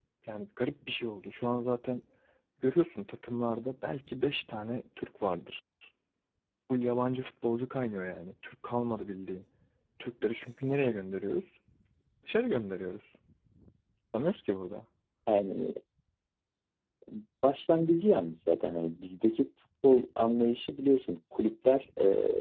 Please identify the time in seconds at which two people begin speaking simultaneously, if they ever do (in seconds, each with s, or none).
none